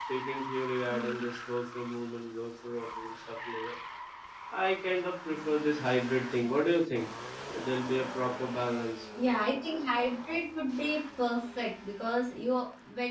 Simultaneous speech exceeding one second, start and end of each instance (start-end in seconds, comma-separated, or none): none